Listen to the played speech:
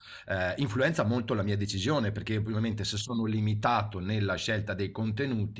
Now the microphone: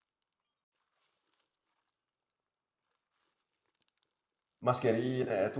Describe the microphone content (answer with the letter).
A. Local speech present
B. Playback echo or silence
A